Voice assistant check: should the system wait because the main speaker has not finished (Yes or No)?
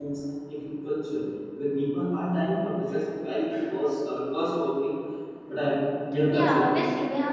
No